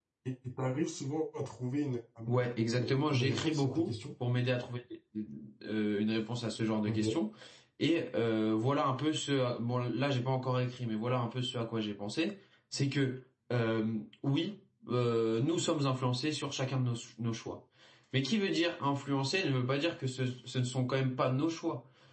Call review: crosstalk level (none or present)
present